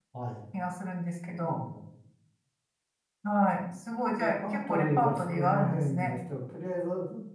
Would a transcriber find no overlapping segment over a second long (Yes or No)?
No